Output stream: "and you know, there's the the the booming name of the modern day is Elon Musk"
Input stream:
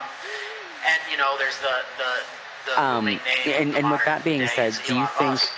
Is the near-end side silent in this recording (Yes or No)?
No